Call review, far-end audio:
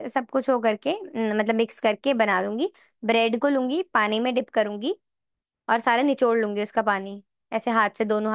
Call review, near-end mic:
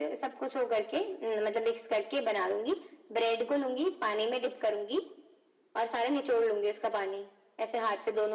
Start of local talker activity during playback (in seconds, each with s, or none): none